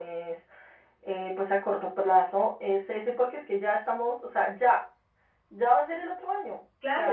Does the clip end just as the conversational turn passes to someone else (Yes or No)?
Yes